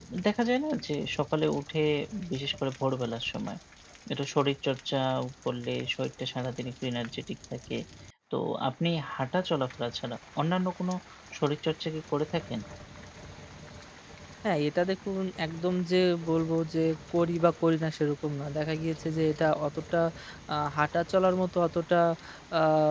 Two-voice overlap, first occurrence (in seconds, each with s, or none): none